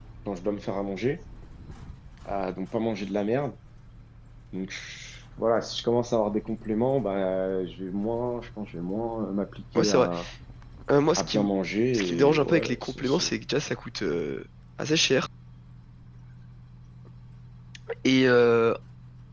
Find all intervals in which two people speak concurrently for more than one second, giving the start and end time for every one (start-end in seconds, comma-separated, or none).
11.9-13.3